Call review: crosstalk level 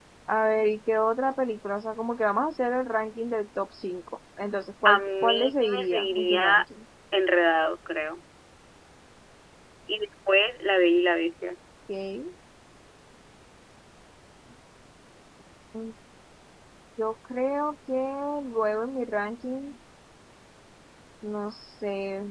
present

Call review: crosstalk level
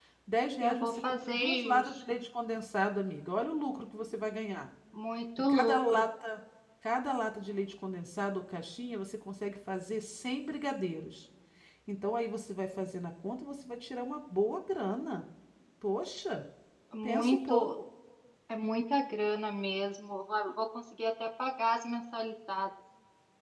present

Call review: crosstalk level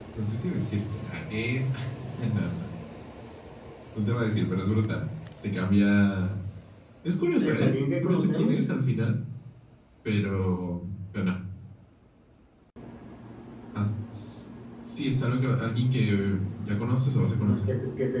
present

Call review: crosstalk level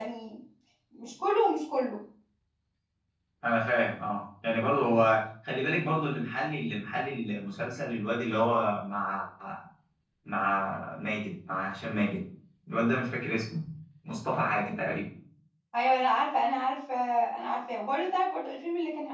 none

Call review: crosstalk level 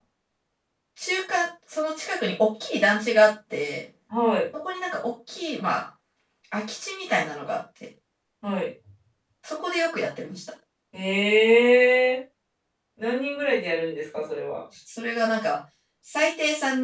none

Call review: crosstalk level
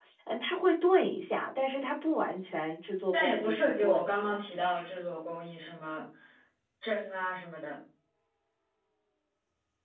present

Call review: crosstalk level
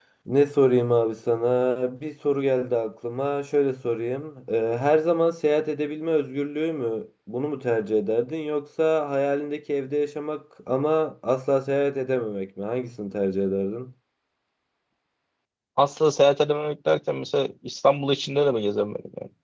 none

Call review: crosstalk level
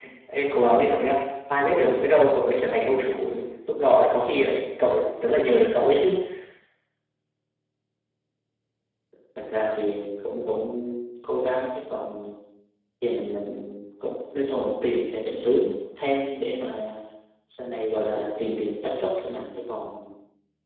none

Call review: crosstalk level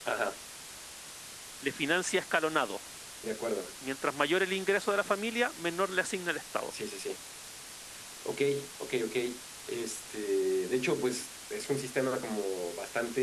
none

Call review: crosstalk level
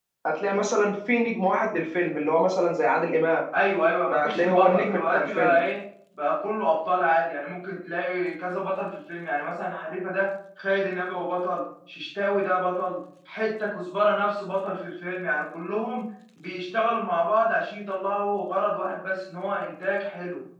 present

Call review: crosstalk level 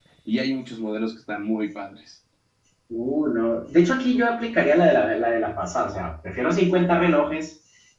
none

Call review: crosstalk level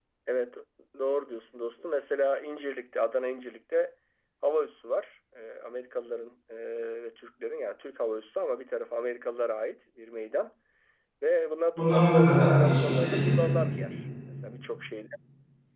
present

